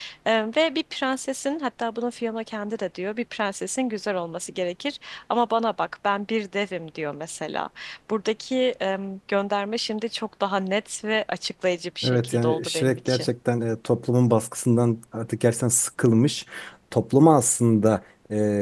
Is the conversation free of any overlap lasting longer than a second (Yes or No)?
No